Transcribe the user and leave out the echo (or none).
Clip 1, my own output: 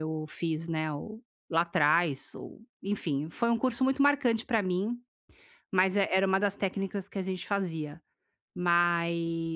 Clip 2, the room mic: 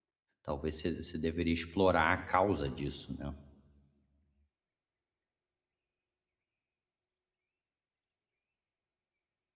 talvez você você deveria explorar a causa disso, né,